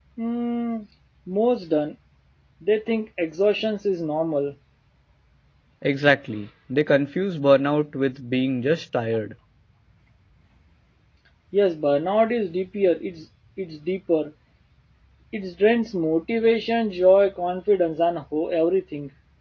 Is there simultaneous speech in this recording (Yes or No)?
No